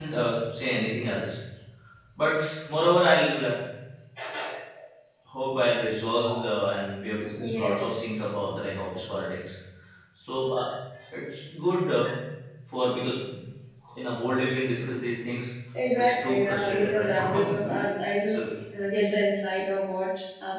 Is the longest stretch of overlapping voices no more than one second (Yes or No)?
No